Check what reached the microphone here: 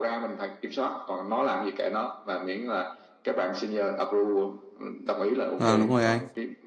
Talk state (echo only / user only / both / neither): both